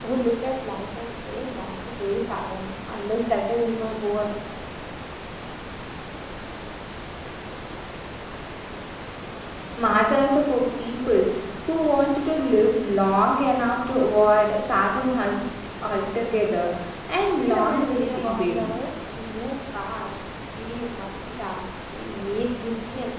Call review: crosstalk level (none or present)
present